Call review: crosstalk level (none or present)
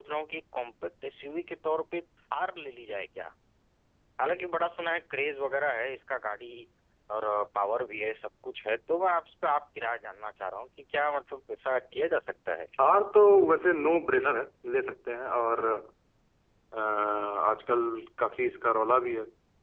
none